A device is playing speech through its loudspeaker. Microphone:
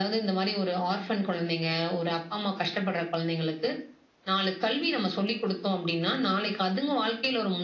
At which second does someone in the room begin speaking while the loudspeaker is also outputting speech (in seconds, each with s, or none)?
none